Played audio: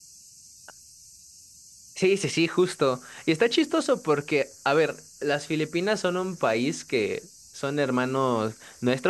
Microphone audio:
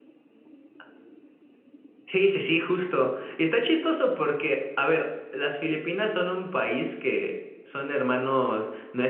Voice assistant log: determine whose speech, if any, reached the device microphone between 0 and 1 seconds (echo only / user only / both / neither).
neither